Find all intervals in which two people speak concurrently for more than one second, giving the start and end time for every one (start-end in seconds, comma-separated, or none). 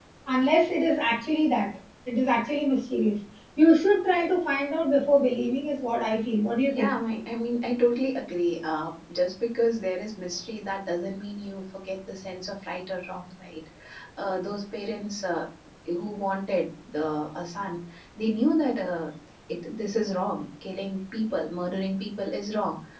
none